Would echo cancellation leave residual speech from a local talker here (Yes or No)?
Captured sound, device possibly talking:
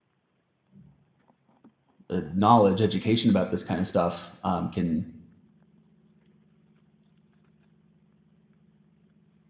Yes